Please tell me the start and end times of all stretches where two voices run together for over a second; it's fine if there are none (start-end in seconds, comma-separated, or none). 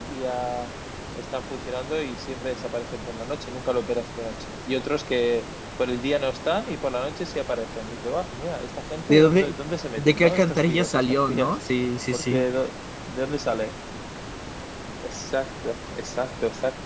10.0-11.6